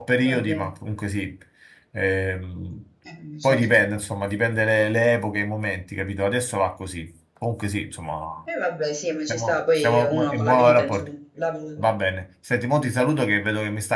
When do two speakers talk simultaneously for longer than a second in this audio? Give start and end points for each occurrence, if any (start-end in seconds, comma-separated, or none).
9.3-11.1